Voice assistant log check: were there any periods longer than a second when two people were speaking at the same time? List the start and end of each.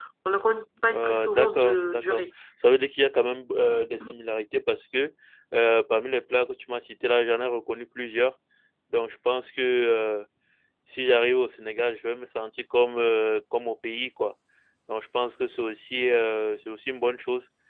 0.9-2.2

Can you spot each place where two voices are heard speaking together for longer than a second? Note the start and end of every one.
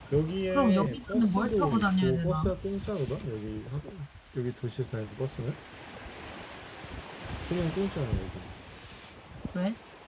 0.5-2.5

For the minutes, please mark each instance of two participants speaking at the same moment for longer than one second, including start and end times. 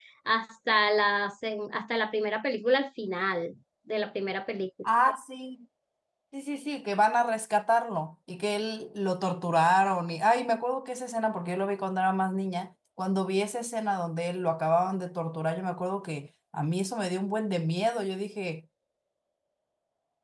none

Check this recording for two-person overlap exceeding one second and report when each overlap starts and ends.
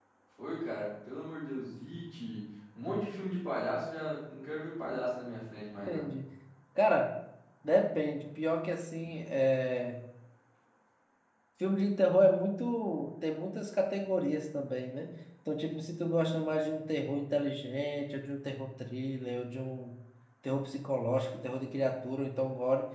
none

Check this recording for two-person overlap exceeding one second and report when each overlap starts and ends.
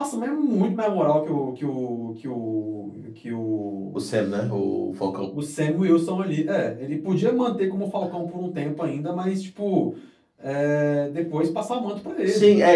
none

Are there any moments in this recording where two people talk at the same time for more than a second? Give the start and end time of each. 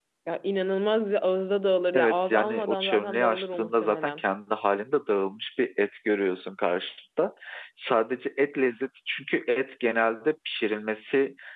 1.9-4.2

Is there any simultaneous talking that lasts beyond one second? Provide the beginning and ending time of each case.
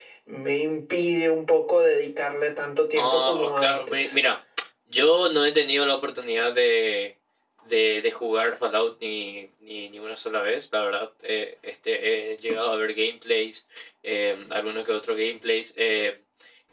3.0-4.3

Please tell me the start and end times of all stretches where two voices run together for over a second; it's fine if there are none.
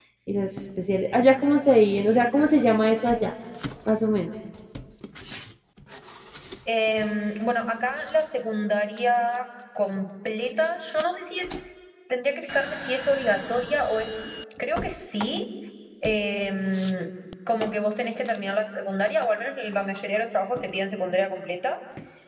none

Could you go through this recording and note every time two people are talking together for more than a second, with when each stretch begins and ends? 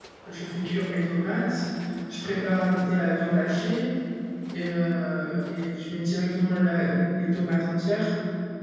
none

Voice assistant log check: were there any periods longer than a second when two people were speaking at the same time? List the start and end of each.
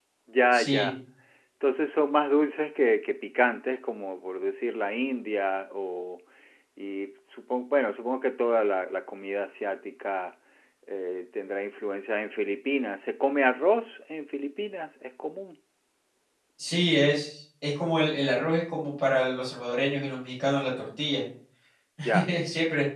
none

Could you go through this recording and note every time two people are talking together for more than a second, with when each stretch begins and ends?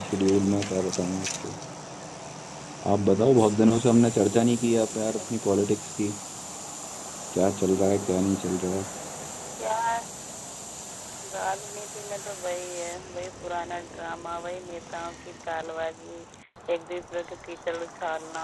none

